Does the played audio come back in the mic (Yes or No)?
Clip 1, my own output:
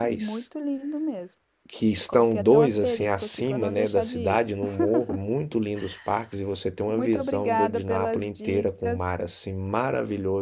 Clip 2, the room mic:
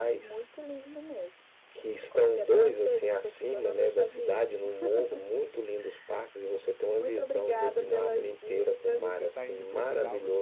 Yes